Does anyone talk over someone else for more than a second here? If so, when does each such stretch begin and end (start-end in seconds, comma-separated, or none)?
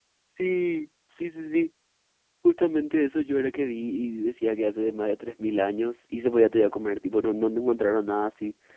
none